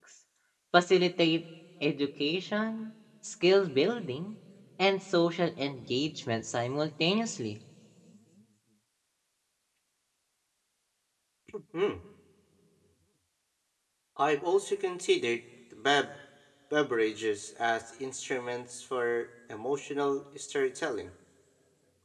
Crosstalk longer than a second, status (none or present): none